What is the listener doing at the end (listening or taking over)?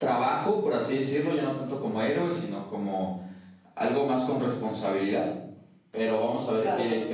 listening